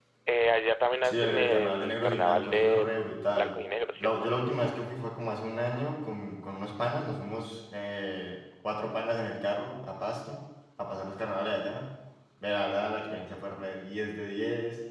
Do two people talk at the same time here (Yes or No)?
Yes